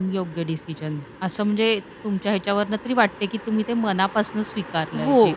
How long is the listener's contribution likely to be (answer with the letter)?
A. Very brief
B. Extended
B